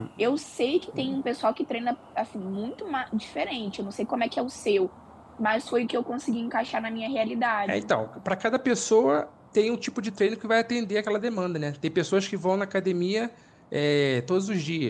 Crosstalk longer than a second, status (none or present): none